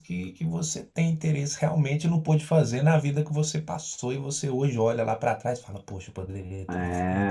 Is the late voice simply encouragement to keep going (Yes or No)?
No